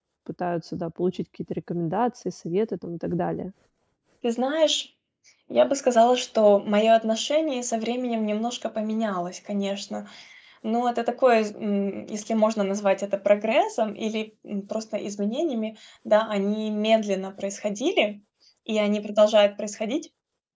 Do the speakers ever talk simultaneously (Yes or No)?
No